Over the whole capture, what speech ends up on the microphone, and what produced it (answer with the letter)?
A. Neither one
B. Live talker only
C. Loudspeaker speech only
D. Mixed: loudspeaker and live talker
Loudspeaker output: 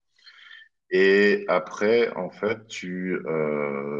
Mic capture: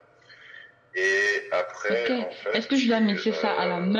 D